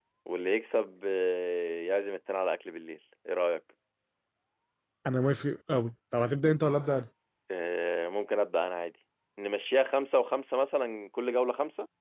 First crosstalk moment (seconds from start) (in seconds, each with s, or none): none